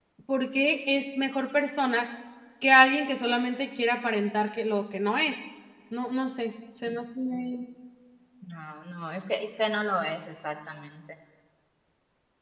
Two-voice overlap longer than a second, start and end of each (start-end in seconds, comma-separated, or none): none